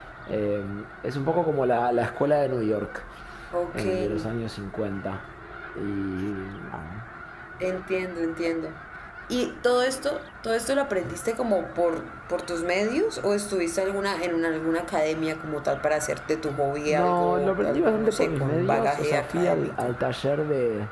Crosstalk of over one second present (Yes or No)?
Yes